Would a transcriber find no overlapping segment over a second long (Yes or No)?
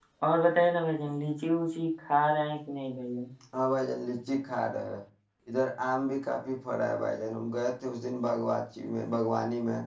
Yes